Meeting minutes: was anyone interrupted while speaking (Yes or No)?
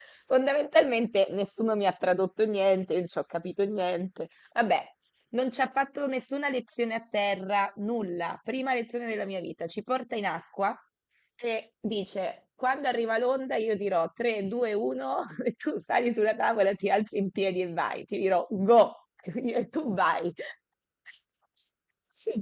No